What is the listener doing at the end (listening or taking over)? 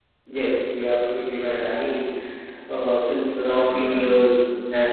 listening